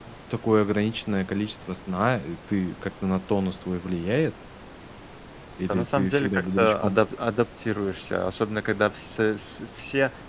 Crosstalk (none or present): present